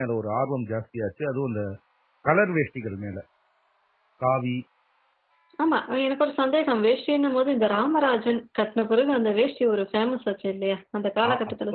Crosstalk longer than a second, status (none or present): none